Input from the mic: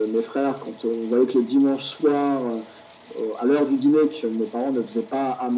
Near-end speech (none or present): none